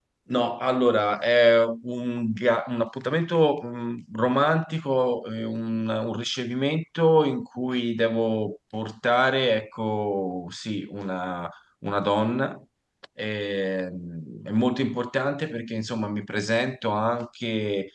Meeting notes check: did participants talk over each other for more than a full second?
No

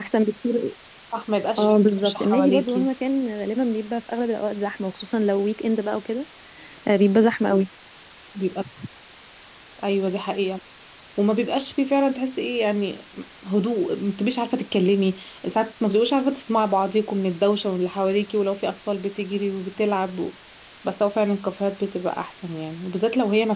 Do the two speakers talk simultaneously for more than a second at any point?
Yes, from 1.6 s

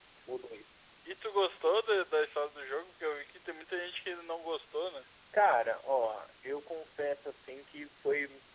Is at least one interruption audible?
No

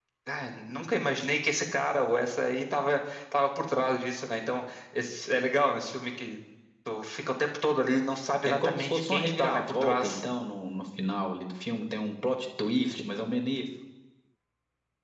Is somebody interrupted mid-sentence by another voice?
Yes, from 8.6 s

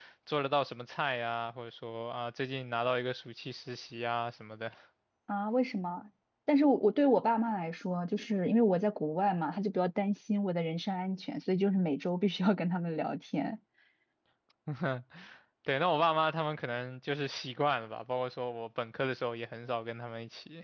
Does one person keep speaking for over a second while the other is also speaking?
No

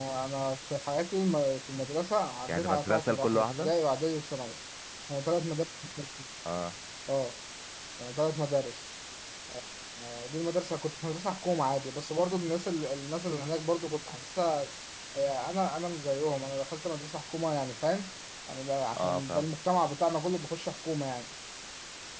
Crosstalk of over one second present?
Yes, from 2.5 s

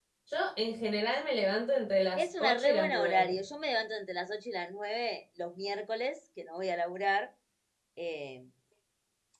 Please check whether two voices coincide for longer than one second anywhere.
Yes, from 2.1 s

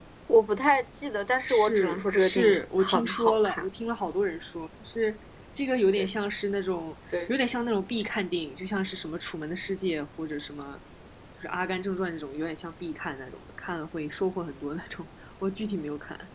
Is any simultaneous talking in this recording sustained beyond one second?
Yes, from 1.5 s

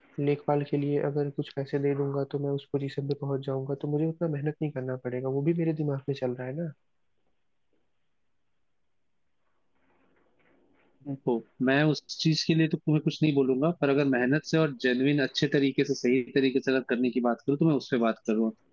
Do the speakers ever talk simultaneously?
No

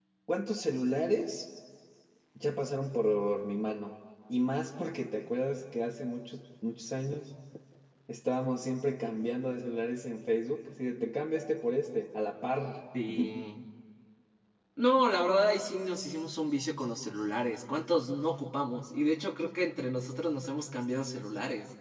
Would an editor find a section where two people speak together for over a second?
No

